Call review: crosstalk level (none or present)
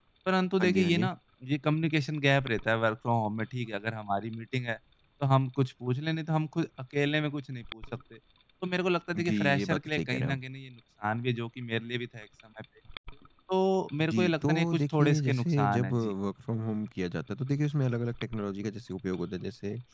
present